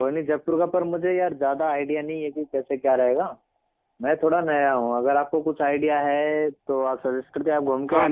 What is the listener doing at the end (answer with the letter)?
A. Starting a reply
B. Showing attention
A